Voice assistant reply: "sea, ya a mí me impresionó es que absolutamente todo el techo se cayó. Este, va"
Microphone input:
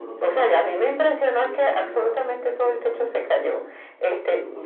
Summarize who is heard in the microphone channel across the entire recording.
both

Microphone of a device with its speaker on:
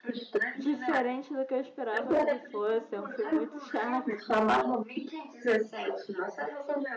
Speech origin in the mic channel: both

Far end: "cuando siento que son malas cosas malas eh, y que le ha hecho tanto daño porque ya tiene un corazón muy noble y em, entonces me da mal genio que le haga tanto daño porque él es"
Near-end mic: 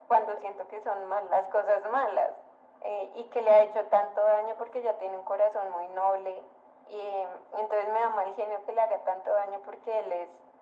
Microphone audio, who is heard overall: echo only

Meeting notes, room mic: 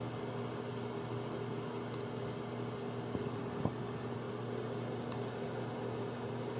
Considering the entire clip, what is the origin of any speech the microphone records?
neither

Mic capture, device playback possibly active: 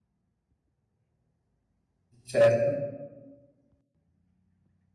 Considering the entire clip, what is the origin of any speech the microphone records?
user only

